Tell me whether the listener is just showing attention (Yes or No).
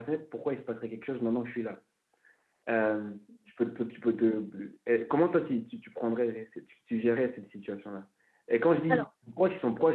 Yes